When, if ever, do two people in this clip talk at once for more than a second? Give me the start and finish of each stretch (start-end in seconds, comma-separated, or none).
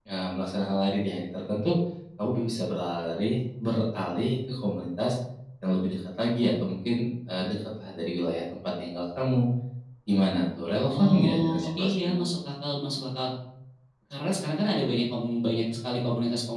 10.9-12.2